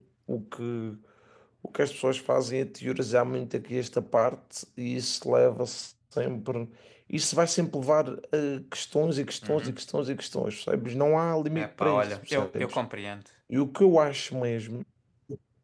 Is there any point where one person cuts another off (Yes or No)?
Yes